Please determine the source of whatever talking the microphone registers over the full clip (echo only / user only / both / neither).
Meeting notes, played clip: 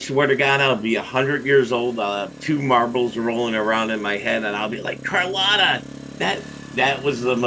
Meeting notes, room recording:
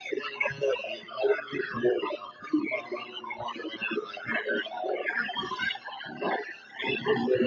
echo only